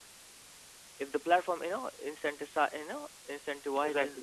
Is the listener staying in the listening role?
Yes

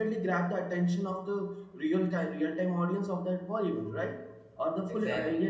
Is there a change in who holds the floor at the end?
No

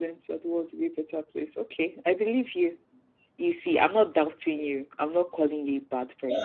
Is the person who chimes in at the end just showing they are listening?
No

